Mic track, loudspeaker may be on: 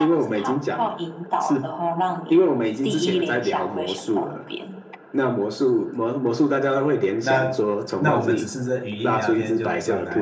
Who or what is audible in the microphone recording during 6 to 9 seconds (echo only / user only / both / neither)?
both